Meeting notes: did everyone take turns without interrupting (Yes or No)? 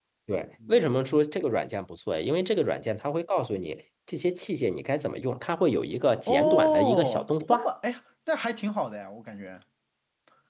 No